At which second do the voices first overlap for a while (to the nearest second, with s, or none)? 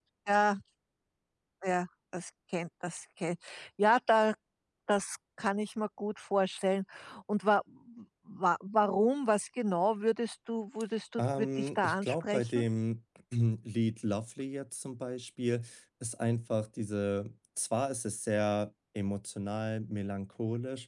11 s